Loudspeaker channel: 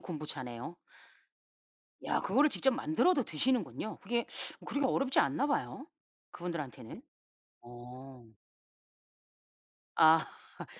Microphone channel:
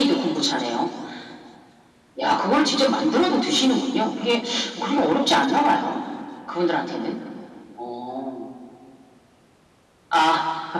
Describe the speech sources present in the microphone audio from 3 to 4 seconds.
echo only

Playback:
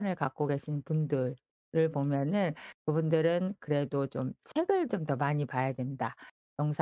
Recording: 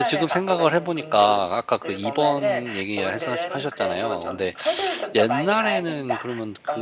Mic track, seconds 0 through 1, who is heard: both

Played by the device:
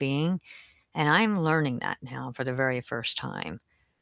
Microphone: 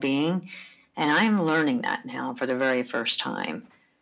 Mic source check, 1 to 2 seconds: echo only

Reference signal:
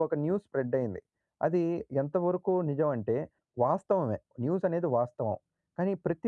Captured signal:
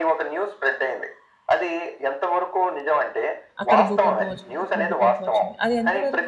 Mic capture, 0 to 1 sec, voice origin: echo only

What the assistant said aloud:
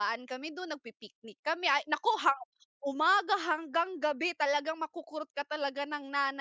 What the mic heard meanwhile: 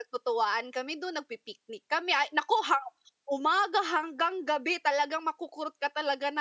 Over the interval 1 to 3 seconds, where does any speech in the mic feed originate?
echo only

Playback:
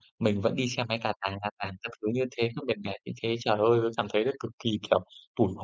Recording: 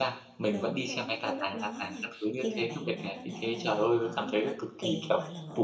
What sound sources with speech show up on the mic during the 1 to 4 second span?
both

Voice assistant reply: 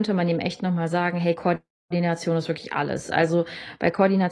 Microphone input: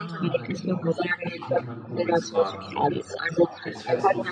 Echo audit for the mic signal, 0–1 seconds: both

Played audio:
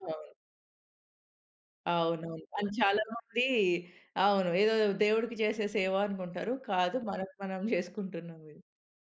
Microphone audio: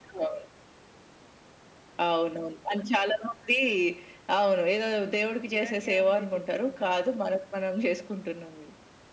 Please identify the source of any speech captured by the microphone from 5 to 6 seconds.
both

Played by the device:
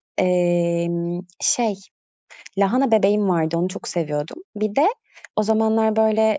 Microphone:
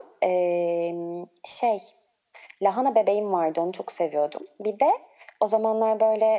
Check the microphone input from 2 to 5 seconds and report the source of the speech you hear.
echo only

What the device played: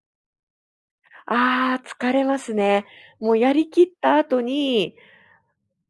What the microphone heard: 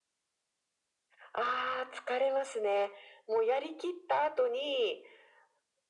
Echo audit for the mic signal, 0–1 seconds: neither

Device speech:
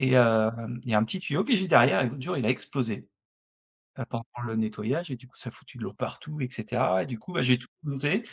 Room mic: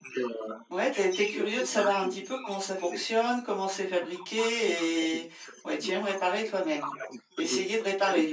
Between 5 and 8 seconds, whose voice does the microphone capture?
both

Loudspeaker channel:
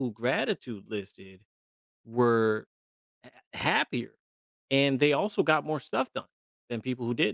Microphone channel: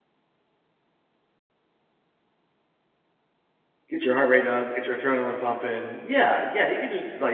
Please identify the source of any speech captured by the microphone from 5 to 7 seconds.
user only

